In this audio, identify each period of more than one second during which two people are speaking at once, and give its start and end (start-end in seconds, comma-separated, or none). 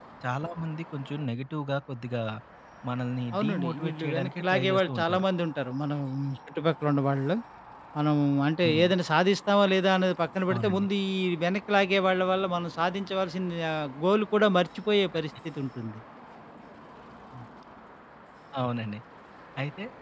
3.4-5.2